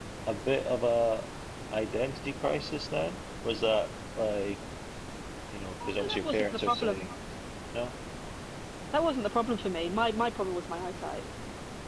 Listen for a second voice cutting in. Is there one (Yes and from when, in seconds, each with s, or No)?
Yes, from 5.9 s